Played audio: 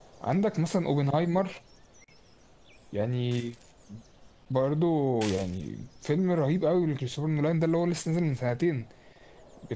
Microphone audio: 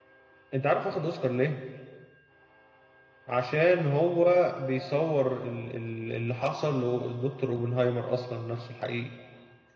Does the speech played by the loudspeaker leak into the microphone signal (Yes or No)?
No